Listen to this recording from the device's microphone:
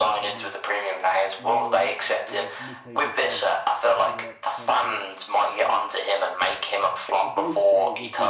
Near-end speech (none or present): present